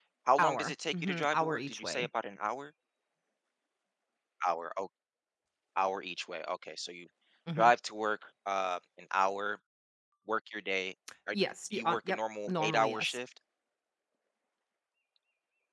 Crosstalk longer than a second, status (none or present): present